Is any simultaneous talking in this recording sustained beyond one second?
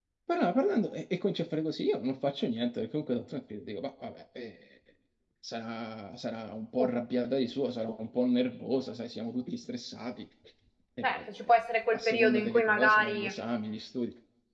Yes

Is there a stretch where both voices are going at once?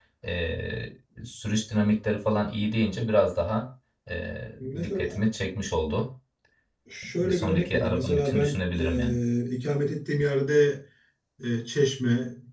Yes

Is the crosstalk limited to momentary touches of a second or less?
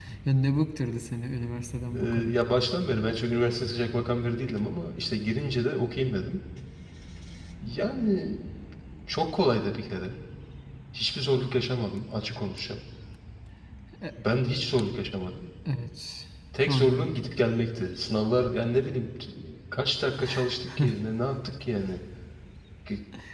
Yes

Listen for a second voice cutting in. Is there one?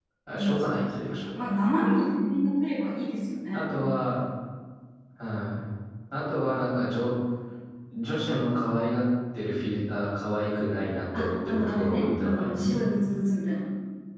Yes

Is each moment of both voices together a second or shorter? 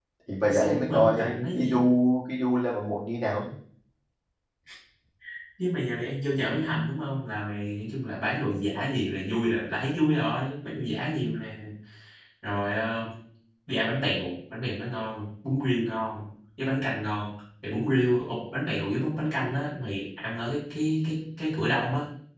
No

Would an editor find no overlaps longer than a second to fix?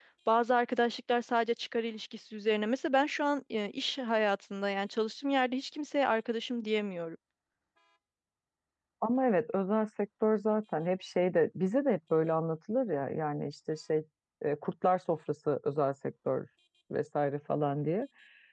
Yes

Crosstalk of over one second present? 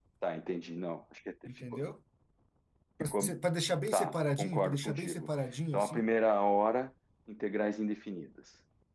Yes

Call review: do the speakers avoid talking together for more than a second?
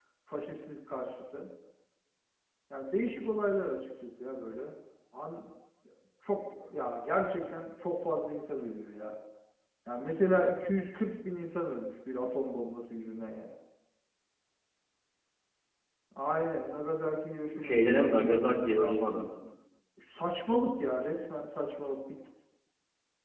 Yes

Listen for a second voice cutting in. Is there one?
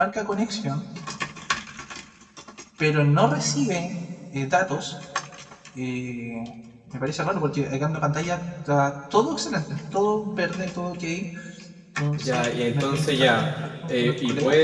Yes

